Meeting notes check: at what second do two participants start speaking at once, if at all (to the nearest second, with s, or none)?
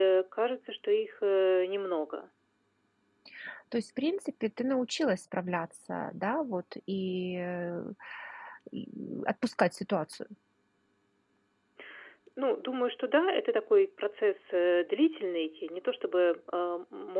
none